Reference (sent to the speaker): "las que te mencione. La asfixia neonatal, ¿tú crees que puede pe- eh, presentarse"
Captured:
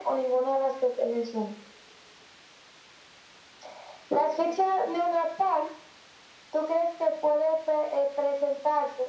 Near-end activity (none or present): none